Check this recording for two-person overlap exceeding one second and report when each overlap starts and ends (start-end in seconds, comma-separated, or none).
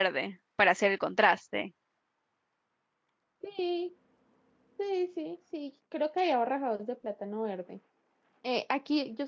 none